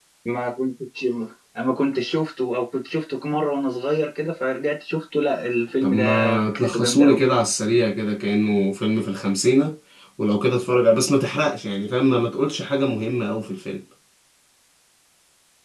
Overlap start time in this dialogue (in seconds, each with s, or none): 5.8 s